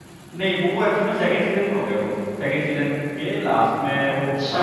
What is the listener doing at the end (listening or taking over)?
taking over